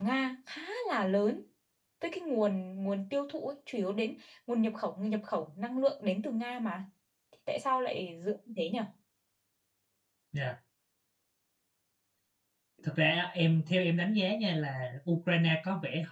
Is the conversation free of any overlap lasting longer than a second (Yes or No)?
Yes